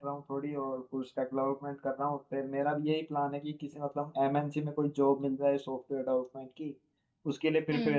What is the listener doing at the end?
listening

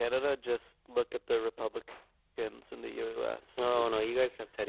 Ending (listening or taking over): taking over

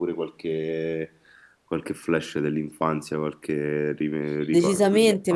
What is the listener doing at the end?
taking over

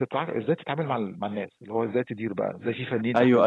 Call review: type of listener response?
taking over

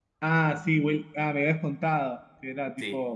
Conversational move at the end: taking over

